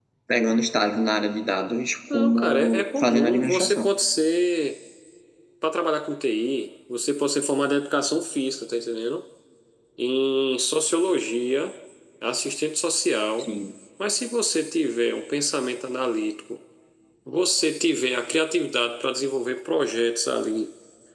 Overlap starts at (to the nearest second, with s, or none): 2 s